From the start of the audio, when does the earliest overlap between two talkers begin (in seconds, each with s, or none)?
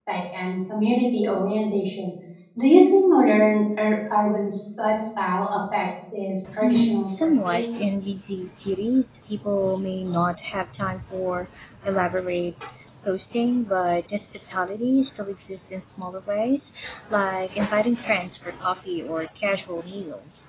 6.4 s